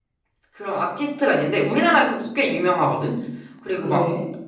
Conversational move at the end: listening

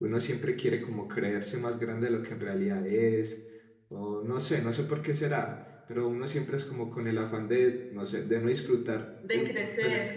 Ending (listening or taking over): listening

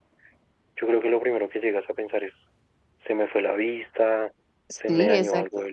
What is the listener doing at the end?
taking over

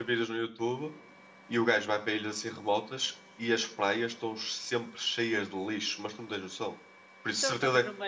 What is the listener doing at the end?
taking over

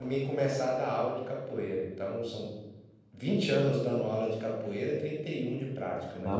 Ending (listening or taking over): taking over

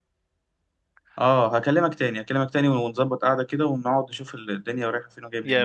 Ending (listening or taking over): taking over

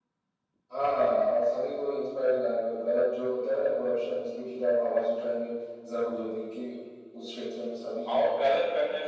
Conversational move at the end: taking over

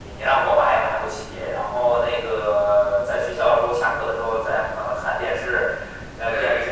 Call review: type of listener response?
listening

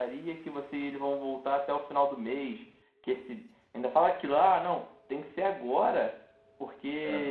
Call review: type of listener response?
listening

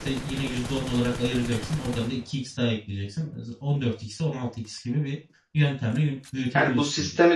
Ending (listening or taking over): taking over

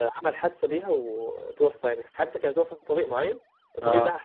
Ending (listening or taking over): listening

